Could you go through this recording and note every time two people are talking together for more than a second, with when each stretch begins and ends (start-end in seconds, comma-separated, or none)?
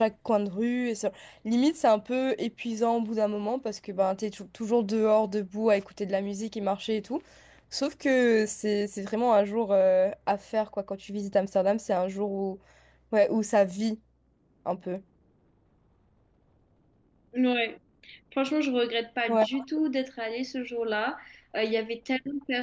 none